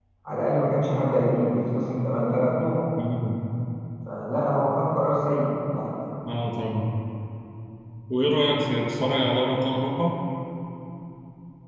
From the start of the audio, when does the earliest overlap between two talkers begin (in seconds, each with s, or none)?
none